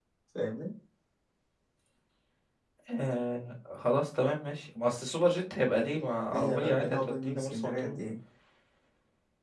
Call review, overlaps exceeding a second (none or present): present